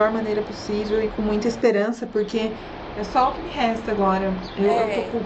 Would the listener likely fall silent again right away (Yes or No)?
Yes